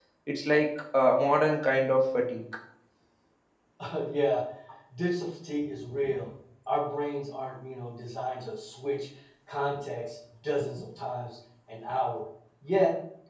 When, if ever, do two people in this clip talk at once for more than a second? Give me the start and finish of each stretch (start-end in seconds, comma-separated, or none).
none